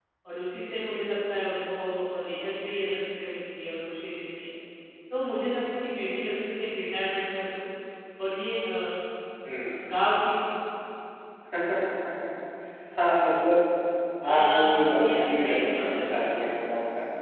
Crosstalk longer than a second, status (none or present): present